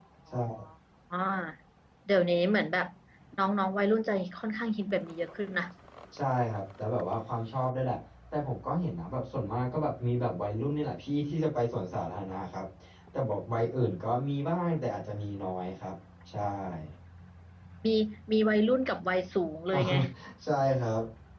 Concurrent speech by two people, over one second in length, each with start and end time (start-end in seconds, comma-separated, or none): none